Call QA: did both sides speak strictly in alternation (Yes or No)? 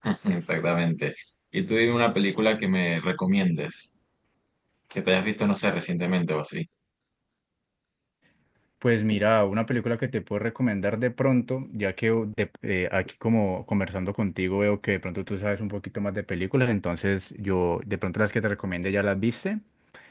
Yes